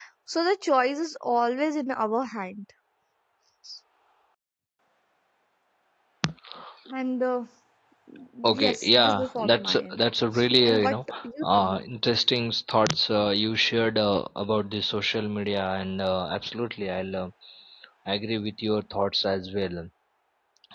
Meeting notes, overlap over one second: present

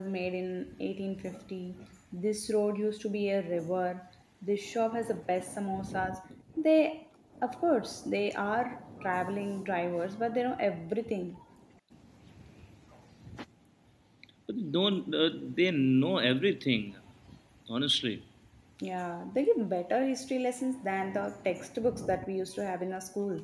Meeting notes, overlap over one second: none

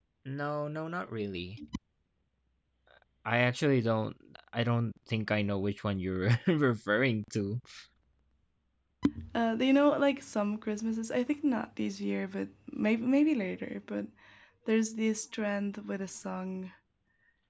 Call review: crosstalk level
none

